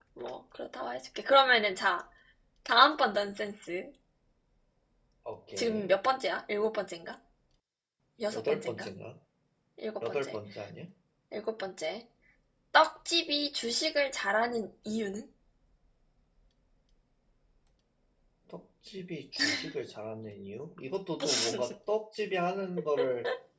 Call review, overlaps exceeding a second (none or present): none